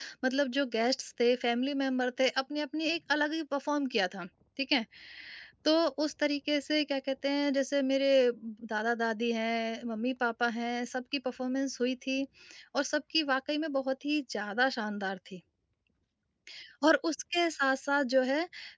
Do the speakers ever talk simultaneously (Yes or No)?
No